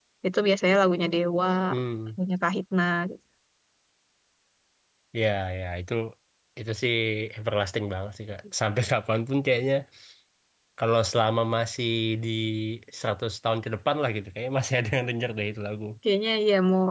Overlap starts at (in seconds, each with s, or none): none